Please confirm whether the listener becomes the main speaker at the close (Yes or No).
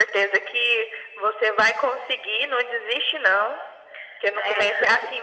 No